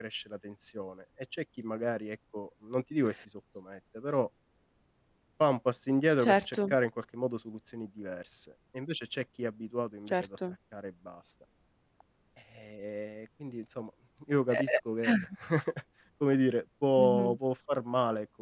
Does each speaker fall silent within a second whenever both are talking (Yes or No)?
Yes